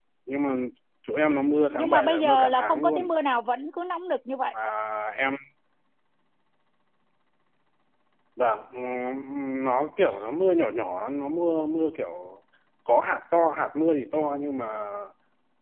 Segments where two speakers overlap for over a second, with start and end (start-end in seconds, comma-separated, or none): 1.8-3.1